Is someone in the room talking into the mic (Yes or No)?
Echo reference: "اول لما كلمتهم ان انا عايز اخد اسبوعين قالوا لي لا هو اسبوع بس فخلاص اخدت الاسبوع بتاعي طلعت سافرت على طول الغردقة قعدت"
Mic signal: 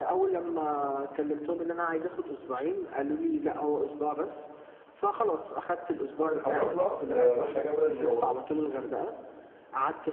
Yes